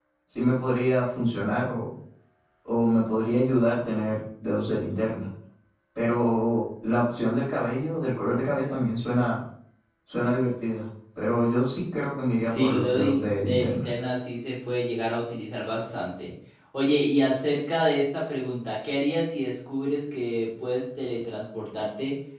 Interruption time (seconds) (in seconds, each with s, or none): 12.5 s